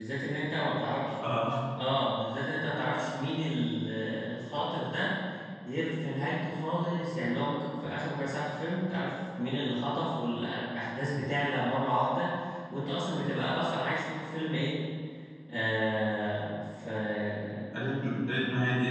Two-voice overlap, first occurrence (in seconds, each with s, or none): none